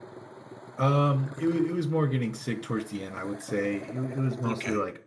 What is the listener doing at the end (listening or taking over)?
listening